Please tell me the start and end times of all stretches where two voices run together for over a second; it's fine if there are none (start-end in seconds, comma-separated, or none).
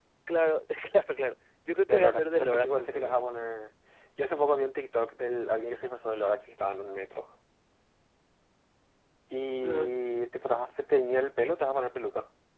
1.9-3.2